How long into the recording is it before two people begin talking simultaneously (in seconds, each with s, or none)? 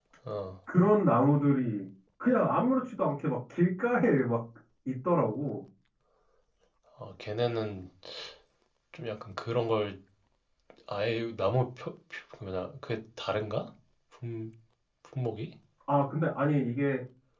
none